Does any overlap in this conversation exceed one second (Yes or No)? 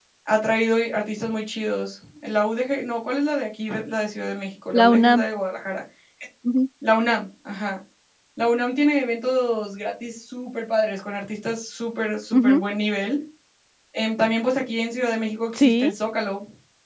No